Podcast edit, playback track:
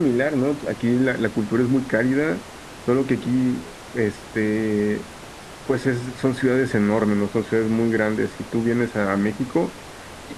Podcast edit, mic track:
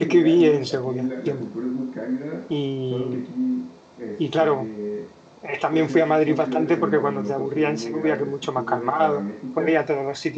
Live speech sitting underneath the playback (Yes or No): No